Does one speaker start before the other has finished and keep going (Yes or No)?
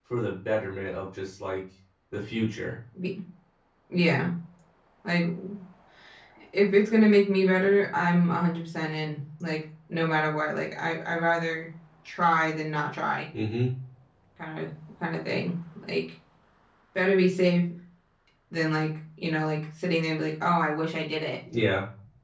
No